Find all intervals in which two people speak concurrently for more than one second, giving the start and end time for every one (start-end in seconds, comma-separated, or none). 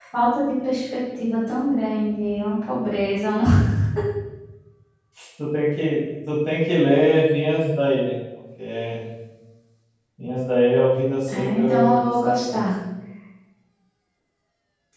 11.3-12.6